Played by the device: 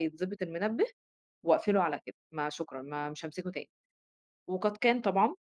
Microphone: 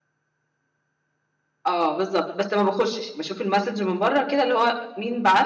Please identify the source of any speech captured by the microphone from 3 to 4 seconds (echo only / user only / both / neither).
user only